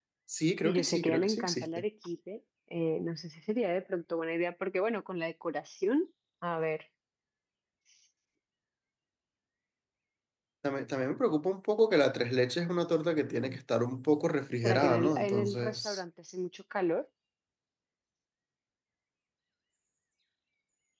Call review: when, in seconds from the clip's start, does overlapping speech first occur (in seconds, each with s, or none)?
0.6 s